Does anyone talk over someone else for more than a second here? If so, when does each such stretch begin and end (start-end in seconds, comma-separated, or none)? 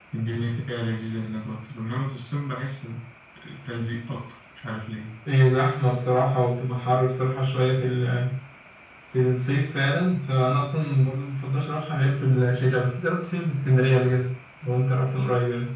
none